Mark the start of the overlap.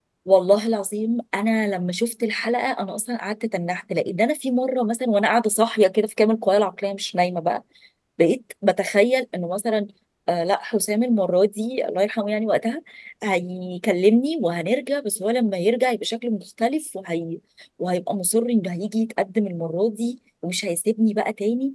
none

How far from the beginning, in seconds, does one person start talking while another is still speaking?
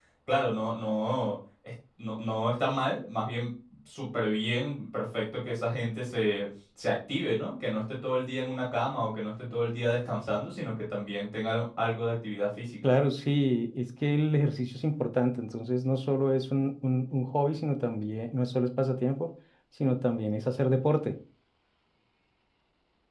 none

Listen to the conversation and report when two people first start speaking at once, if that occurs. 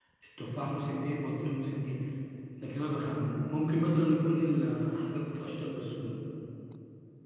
none

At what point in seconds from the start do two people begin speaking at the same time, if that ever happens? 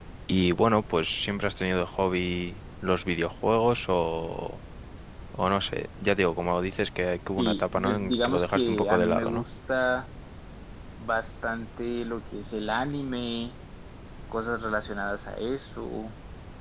7.4 s

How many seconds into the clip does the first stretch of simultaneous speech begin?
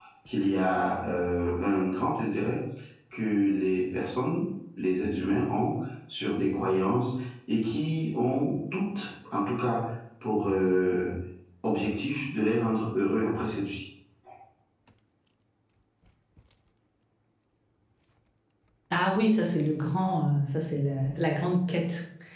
none

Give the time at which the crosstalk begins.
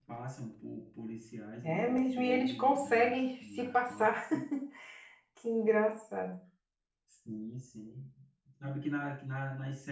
1.6 s

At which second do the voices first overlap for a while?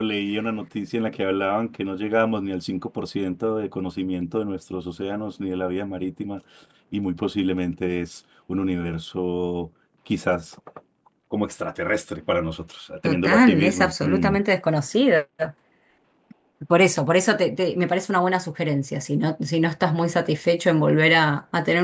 13.0 s

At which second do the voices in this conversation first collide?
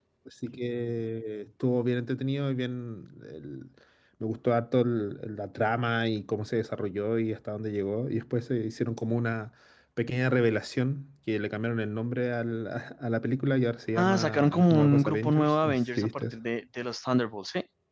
14.0 s

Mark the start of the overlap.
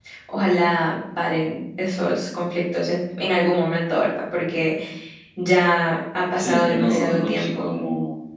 6.4 s

